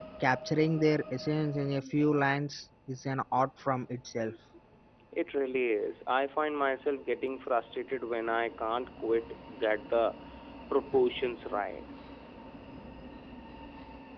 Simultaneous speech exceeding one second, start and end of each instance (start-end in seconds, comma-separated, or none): none